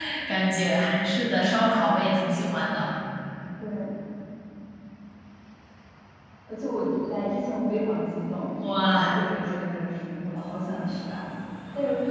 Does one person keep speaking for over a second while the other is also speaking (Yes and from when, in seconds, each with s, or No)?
No